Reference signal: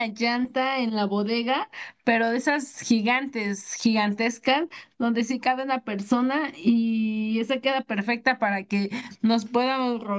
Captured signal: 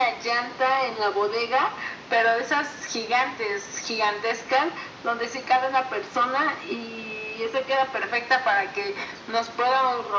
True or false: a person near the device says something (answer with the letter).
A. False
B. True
A